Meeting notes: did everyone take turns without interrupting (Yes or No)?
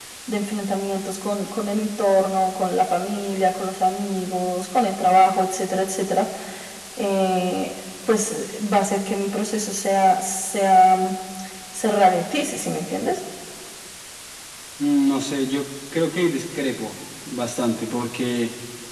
Yes